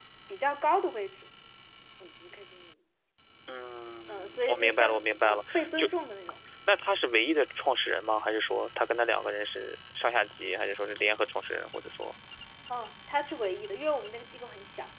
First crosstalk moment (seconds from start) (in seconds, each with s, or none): 4.1 s